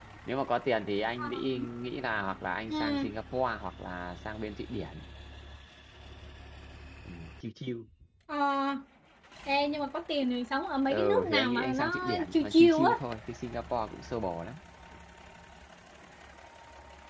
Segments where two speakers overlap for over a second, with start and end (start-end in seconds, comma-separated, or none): 10.9-13.0